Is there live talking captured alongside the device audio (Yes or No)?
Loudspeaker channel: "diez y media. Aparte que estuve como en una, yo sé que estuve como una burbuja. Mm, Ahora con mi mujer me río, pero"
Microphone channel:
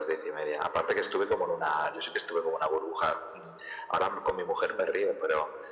No